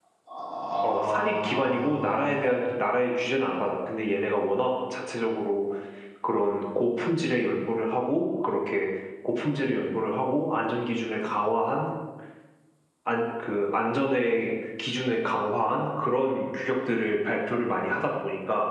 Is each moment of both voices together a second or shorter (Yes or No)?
No